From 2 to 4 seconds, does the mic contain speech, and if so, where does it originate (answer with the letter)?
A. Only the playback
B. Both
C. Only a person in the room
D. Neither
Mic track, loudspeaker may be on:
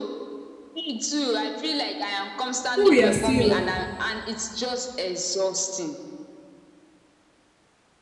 B